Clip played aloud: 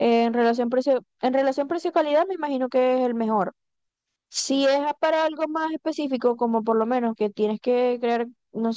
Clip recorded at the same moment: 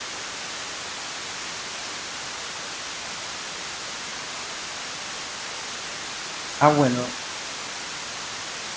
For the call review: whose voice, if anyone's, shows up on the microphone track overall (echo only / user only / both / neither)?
user only